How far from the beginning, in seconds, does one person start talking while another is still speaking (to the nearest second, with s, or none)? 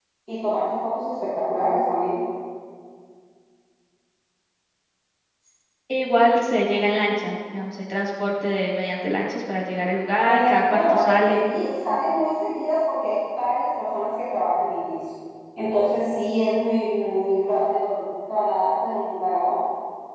10 s